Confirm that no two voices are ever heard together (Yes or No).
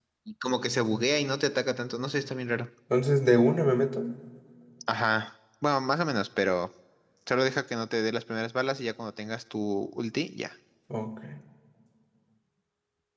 Yes